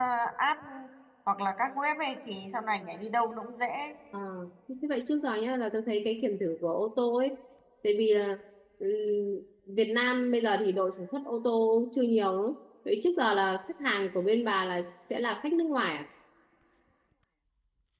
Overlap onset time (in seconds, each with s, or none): none